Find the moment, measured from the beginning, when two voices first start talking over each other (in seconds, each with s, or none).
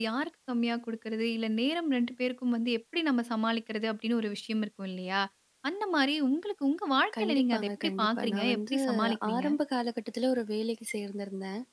7.1 s